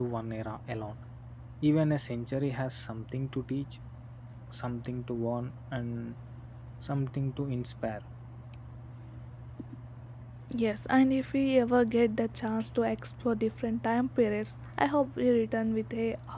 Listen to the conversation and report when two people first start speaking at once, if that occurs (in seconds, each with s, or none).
none